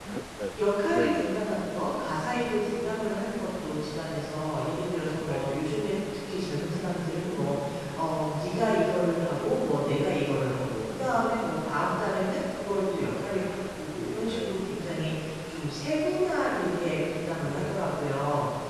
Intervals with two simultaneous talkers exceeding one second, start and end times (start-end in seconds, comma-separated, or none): none